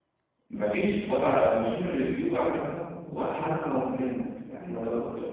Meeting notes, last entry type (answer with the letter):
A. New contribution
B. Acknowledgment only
A